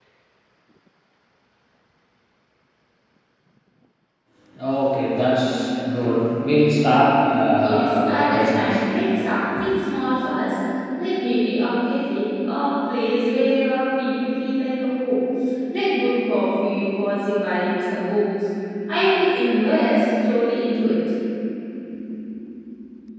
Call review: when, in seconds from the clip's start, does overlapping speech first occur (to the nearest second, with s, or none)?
8 s